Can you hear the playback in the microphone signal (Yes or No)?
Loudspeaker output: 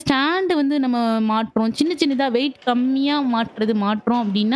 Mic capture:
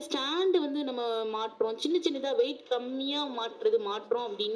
Yes